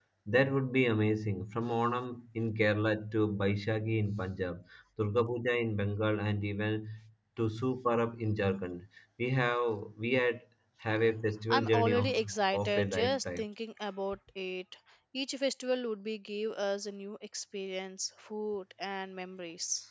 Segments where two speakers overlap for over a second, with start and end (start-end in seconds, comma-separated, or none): 11.5-13.4